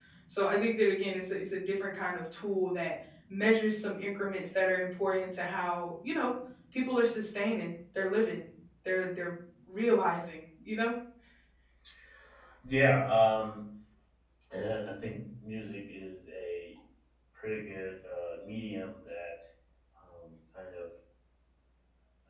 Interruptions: none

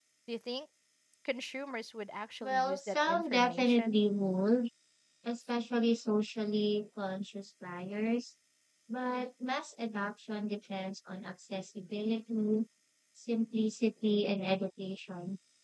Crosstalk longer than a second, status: present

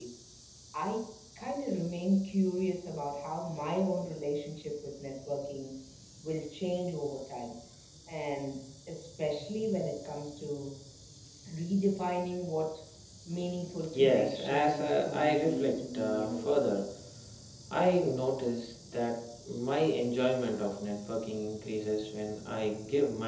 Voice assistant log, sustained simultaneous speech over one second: present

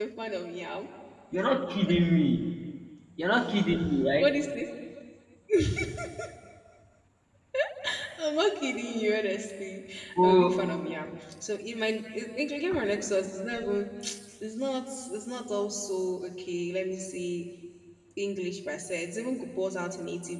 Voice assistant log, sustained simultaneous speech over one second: none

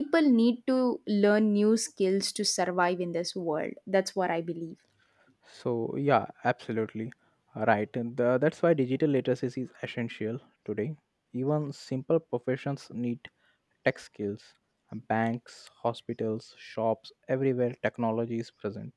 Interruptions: none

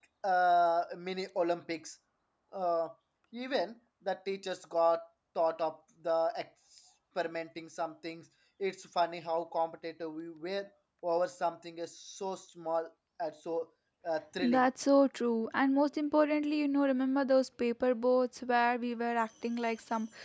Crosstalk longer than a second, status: none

